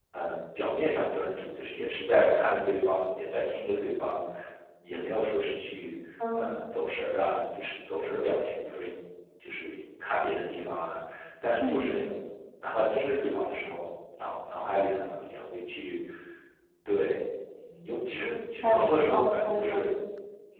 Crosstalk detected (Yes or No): Yes